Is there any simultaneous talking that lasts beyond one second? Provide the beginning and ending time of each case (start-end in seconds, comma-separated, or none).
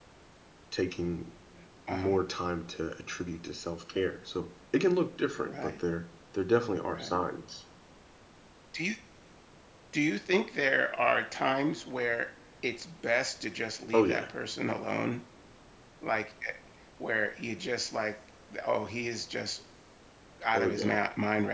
none